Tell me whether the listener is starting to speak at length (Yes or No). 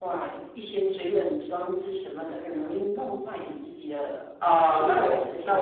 Yes